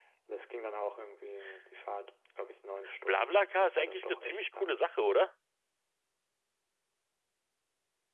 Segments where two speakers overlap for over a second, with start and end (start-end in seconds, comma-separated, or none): 3.0-4.8